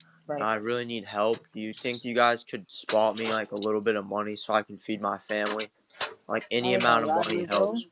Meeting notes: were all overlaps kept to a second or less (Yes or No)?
No